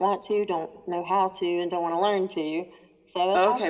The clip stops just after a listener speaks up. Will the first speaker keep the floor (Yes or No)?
No